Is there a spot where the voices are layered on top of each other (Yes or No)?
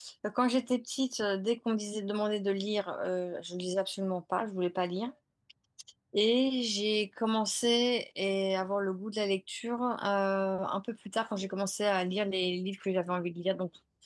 No